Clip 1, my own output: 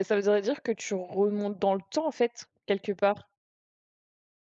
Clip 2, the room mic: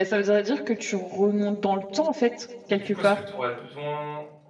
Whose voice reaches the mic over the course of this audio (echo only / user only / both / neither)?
both